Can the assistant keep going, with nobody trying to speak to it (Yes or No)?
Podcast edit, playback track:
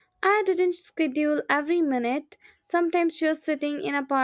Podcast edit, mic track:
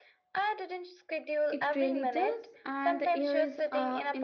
No